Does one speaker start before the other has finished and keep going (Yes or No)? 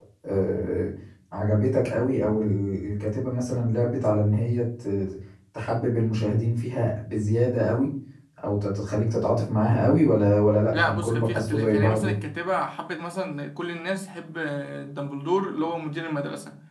Yes